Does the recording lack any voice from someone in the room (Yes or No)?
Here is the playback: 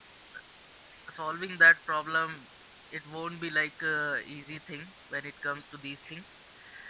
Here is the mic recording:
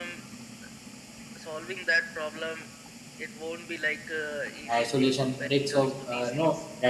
No